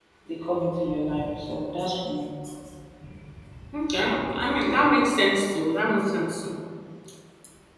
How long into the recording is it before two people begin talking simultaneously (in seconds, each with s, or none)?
none